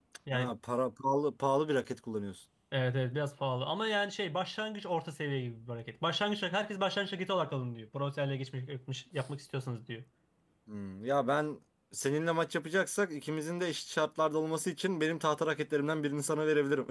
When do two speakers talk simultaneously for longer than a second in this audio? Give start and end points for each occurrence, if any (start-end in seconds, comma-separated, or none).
none